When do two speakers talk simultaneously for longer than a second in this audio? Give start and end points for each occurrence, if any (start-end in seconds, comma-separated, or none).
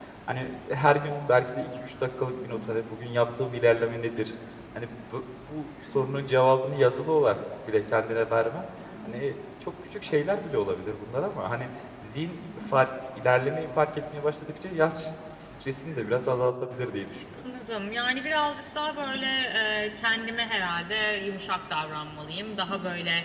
none